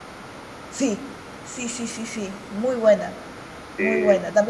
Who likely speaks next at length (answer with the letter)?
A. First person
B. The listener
A